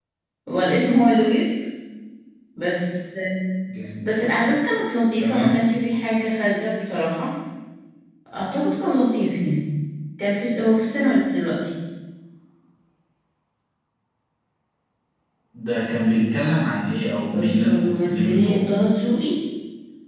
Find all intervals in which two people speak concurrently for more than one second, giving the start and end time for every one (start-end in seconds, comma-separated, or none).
17.2-18.7